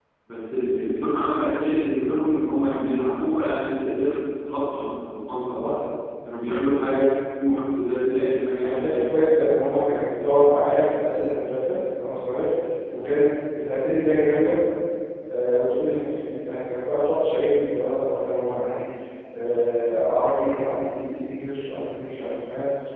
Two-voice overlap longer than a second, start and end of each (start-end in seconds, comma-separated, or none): none